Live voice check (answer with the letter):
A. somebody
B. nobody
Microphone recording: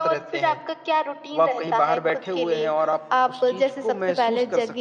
B